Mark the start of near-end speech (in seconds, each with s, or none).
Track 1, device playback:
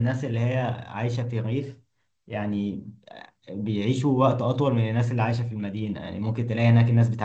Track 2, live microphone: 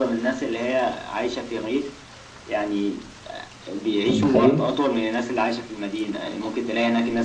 4.0 s